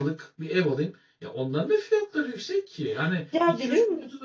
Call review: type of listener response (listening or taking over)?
taking over